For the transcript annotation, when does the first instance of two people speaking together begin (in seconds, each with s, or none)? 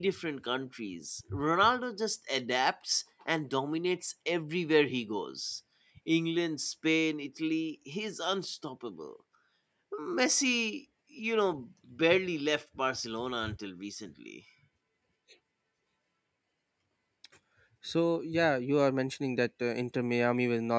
none